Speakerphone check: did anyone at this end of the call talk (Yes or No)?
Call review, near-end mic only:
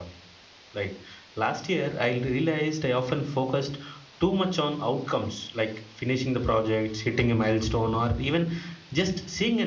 Yes